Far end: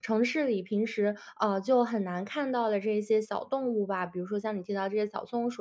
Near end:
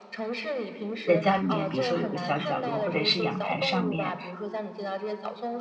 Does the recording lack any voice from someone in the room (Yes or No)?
No